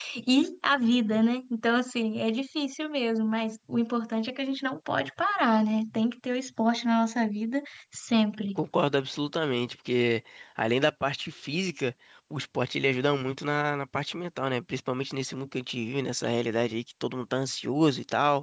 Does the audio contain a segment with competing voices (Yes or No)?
No